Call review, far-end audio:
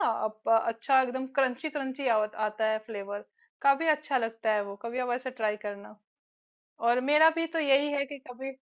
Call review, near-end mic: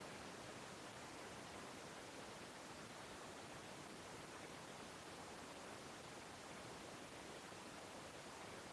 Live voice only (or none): none